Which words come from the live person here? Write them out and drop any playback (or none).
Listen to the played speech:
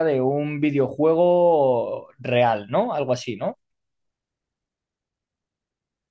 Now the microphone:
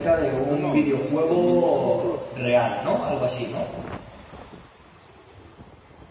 No, no, este, me gustan mucho los